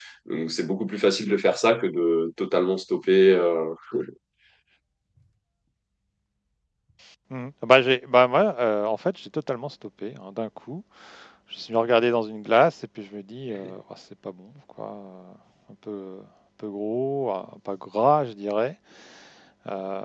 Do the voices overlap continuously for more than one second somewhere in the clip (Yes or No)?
No